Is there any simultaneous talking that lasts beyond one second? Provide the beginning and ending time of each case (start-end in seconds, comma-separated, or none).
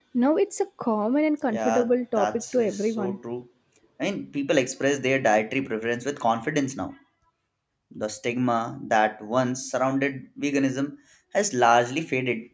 1.5-3.2